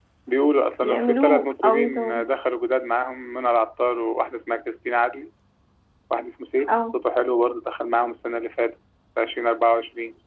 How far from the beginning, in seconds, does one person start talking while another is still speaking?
0.8 s

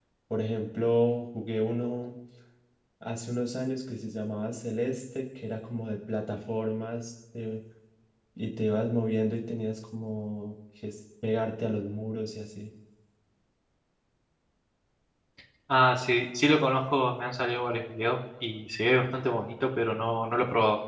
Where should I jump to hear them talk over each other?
none

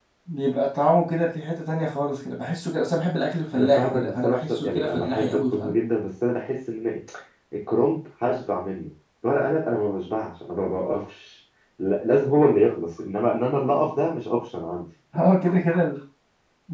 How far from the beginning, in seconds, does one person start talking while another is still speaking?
3.5 s

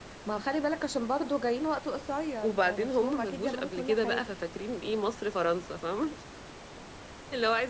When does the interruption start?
2.4 s

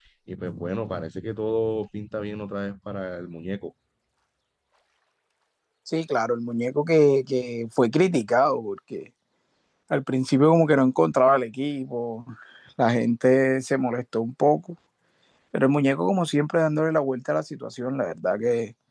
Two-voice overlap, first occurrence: none

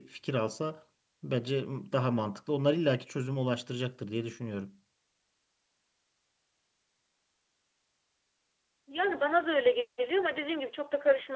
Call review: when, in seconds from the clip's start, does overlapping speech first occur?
none

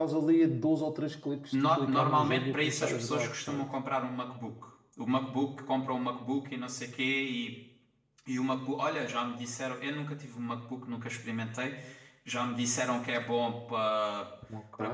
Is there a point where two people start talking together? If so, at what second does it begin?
1.5 s

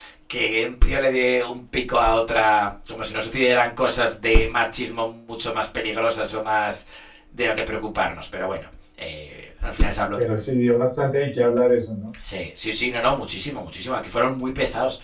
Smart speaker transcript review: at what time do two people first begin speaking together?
none

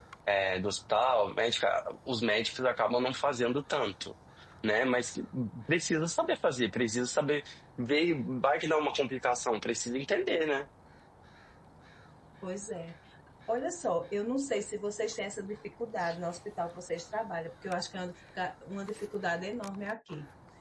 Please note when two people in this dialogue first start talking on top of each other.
none

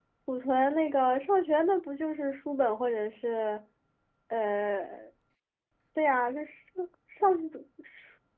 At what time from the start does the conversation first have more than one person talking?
none

